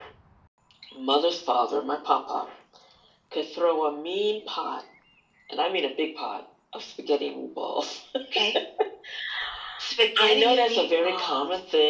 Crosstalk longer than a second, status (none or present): present